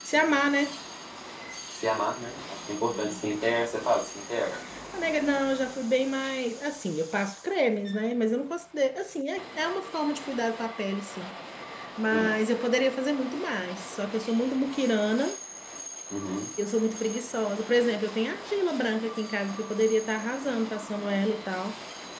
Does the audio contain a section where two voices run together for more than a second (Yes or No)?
No